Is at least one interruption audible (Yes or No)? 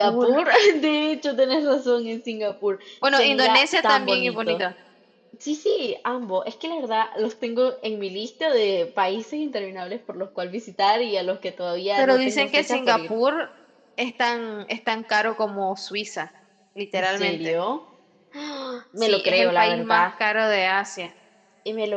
Yes